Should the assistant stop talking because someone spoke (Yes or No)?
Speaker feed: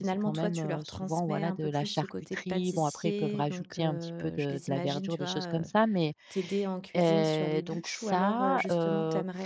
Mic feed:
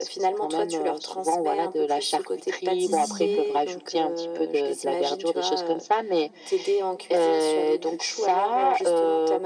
Yes